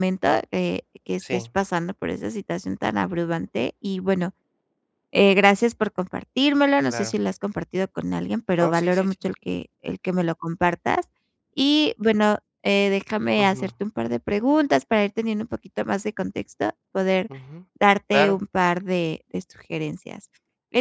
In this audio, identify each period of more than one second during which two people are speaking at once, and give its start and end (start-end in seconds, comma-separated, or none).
none